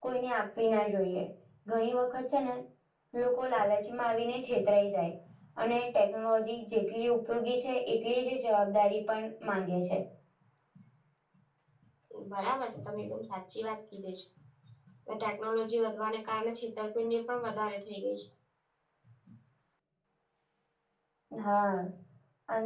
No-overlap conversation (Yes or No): Yes